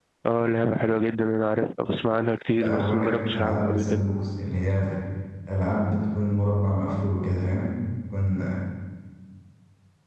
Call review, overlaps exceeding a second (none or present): present